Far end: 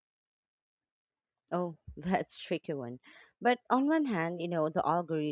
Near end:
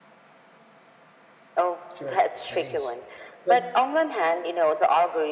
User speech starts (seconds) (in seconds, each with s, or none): 1.9 s